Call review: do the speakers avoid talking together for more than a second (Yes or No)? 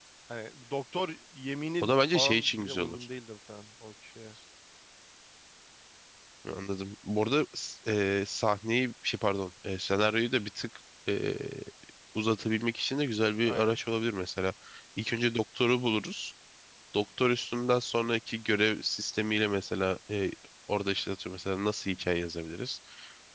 No